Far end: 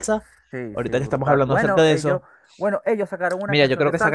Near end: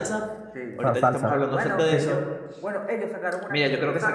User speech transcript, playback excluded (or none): Para salsa. Sí,